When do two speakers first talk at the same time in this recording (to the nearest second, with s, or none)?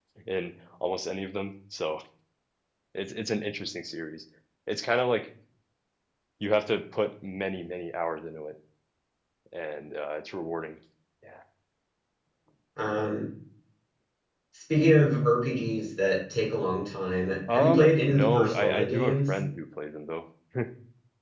17 s